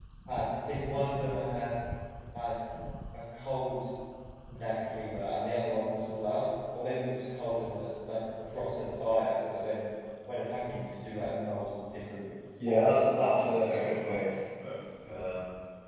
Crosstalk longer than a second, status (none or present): present